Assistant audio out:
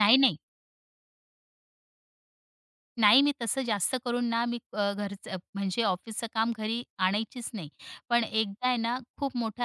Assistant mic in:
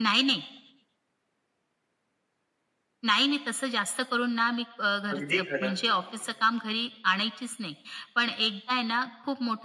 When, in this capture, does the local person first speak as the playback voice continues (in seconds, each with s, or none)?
5.1 s